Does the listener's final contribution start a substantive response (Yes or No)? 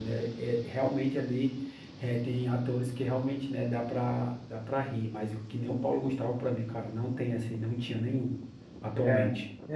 Yes